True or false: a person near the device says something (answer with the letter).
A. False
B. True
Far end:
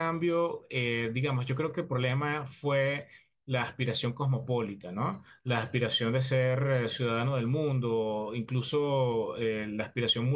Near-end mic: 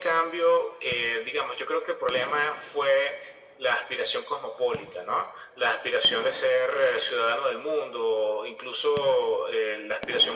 A